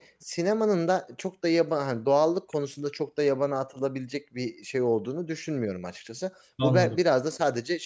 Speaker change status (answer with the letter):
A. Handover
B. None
B